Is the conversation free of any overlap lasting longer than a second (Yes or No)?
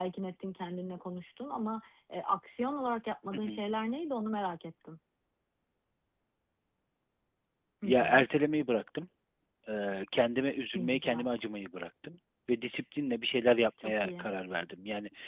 Yes